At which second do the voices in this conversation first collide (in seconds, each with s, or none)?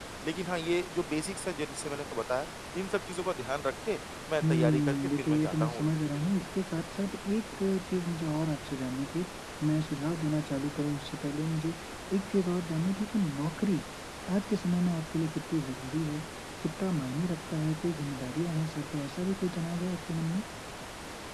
4.4 s